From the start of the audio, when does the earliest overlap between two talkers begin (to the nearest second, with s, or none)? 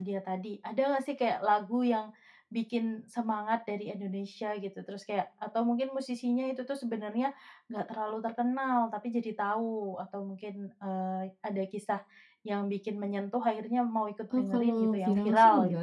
14 s